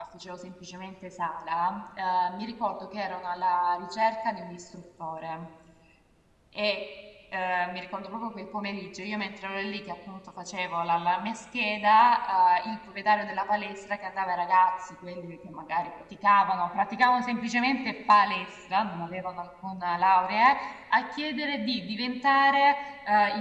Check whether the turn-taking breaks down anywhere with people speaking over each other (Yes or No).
No